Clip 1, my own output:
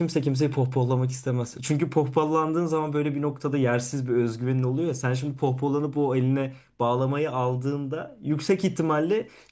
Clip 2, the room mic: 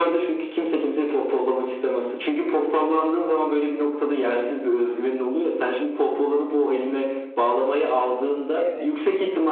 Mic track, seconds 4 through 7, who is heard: echo only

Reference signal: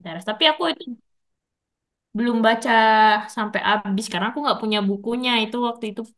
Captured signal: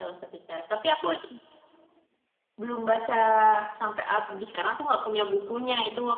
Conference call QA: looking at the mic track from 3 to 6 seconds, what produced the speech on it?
echo only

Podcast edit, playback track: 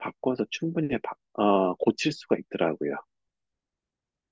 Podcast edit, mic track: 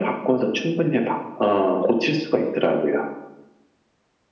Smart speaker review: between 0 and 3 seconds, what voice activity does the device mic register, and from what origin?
echo only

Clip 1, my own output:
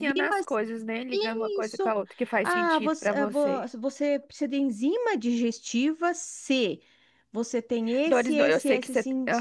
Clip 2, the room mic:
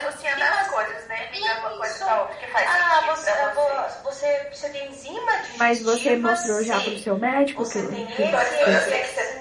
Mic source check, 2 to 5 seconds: echo only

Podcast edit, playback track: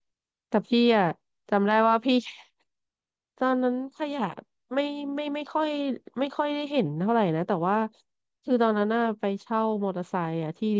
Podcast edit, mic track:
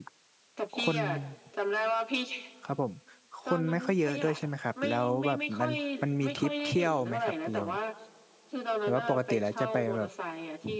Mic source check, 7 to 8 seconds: both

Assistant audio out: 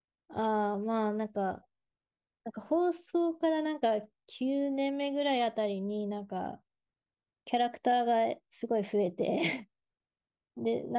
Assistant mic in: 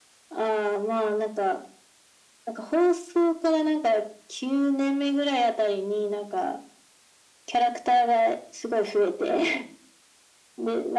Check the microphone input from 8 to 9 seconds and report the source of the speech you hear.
echo only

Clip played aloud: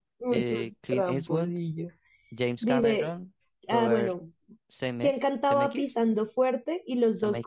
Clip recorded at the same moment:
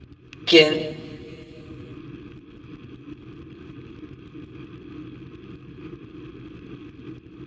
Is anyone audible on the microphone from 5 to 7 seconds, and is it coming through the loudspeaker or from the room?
neither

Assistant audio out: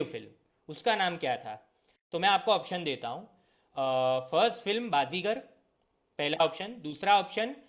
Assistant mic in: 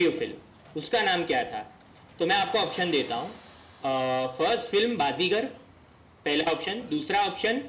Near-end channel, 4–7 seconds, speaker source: echo only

